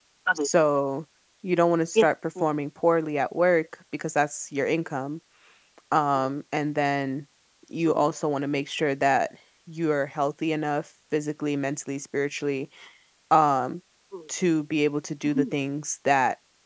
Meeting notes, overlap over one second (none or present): none